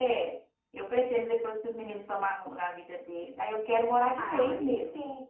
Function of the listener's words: taking over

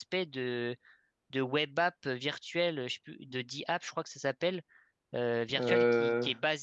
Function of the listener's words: listening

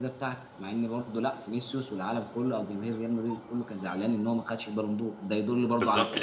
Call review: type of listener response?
taking over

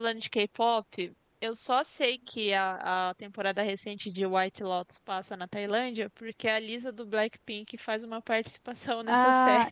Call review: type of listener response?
taking over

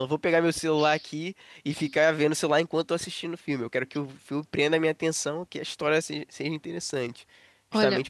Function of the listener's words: listening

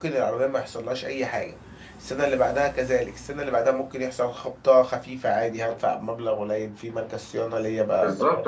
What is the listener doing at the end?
taking over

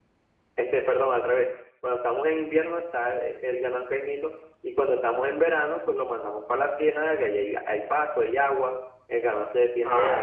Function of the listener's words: taking over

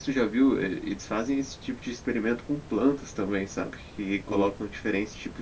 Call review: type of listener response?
listening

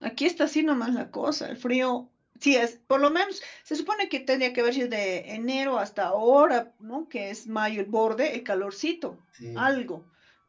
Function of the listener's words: listening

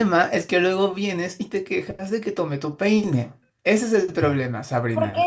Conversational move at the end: taking over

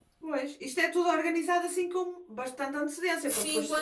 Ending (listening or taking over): taking over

